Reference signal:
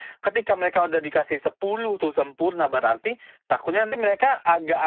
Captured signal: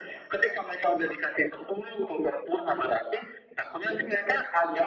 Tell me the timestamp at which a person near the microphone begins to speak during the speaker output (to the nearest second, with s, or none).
none